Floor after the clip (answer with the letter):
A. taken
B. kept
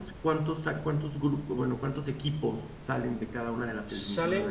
A